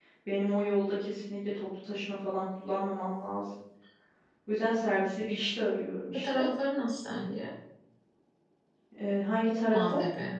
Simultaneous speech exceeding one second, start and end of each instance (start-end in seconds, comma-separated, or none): none